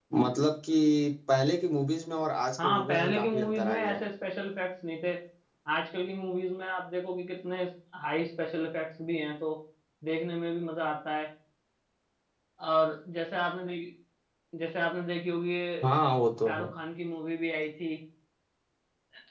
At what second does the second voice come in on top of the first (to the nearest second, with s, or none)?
3 s